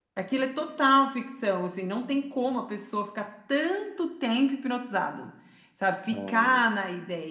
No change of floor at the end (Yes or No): Yes